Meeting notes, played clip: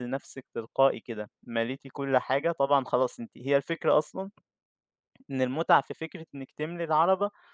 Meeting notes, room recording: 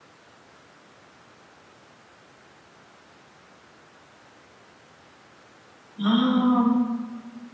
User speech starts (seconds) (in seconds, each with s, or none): 6.0 s